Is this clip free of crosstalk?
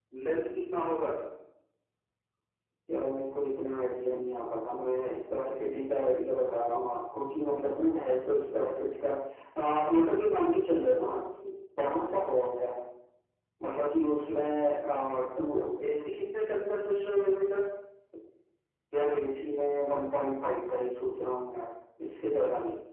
Yes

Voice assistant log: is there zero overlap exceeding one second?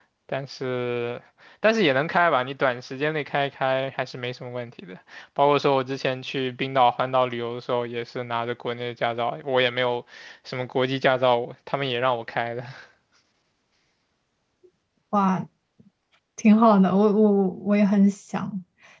Yes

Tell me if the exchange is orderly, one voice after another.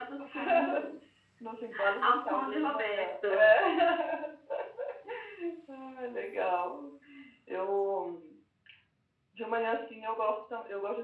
No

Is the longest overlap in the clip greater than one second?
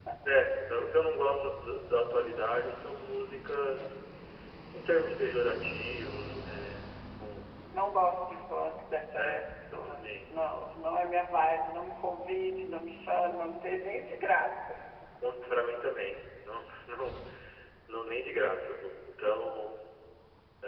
Yes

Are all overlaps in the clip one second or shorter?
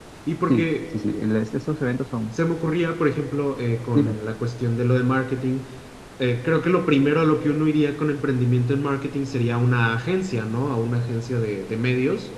Yes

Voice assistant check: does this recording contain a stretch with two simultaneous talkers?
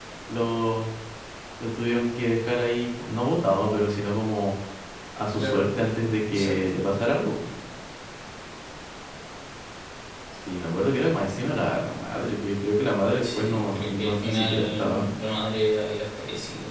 Yes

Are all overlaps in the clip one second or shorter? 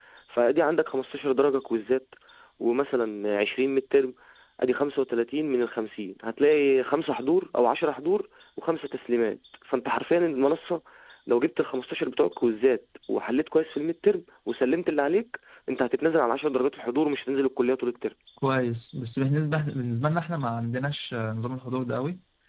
Yes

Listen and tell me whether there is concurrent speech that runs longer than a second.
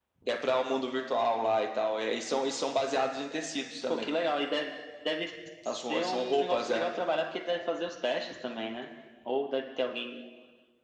Yes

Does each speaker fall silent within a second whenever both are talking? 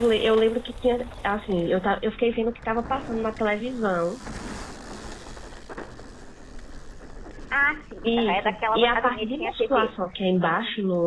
No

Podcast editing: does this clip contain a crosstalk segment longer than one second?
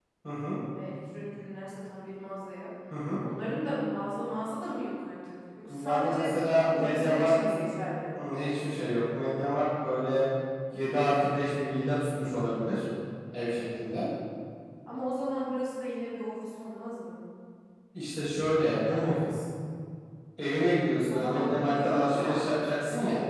Yes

